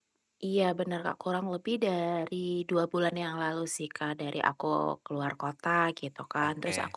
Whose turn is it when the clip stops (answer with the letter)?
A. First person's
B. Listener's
A